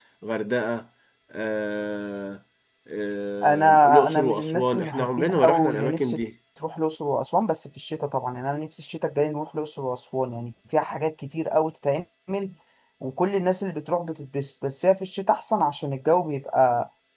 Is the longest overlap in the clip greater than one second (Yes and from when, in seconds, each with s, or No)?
Yes, from 3.4 s